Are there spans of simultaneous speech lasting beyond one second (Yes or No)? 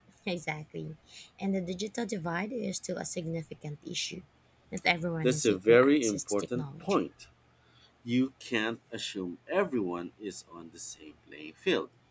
Yes